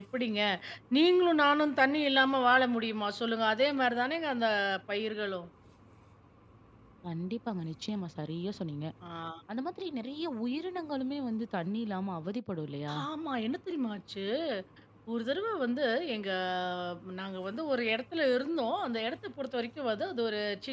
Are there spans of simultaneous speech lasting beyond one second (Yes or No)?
No